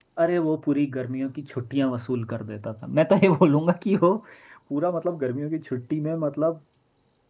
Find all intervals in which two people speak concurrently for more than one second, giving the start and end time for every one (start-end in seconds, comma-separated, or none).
none